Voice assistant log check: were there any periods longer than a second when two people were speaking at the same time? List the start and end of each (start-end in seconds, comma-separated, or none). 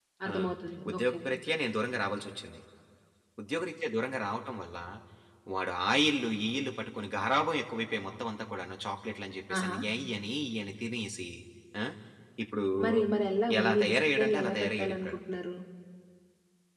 13.6-15.2